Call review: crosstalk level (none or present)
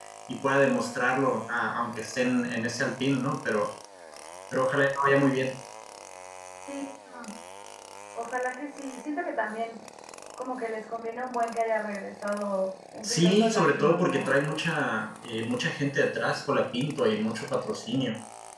present